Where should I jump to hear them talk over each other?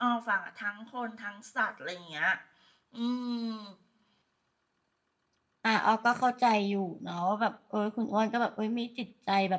none

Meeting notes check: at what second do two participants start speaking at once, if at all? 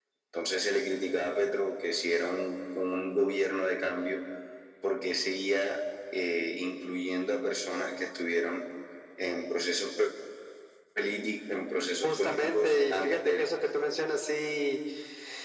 12 s

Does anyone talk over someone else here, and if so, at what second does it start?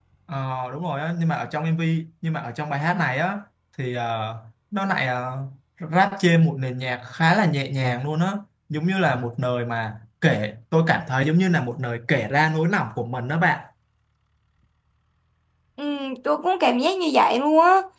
none

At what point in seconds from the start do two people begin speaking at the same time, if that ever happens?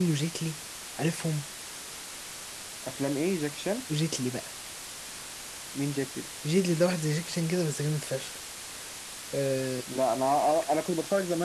none

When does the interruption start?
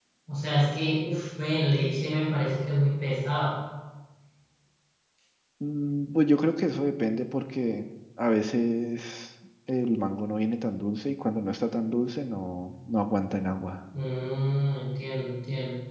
none

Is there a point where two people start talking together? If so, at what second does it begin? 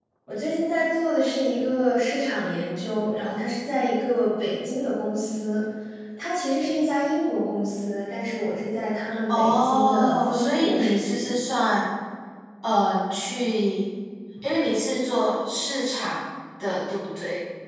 9 s

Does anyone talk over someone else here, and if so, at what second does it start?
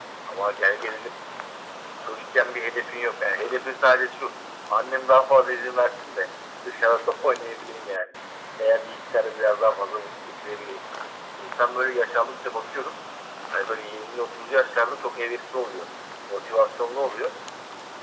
none

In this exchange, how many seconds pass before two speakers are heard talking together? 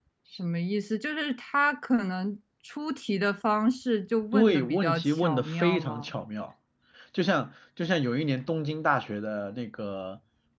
4 s

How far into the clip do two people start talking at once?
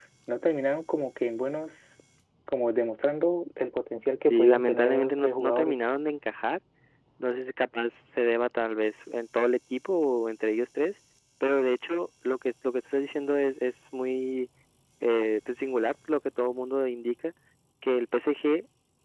4 s

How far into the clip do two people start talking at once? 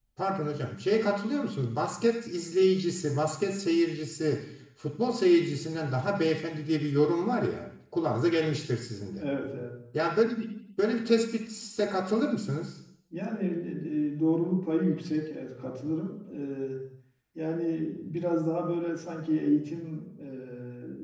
none

